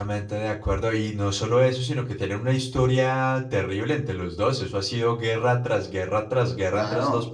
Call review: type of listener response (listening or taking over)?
taking over